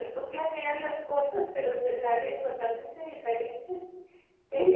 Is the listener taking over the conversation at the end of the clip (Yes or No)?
No